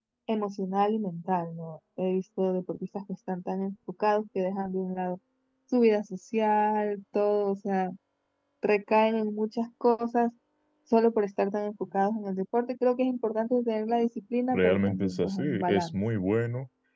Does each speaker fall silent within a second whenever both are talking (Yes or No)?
No